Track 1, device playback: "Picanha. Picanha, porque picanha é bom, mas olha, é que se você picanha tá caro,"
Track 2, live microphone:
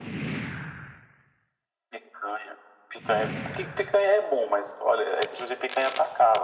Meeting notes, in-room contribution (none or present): none